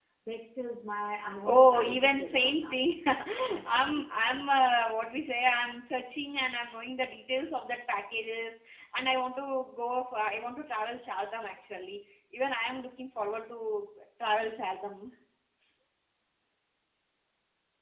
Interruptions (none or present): present